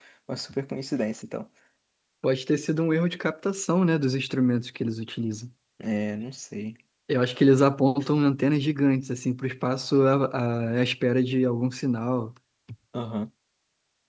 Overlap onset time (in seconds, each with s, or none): none